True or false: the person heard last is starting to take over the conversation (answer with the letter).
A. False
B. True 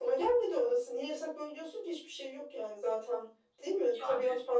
A